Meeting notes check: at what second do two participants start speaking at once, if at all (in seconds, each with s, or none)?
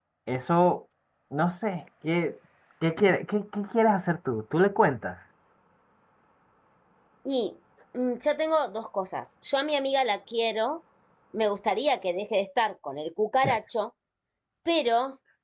none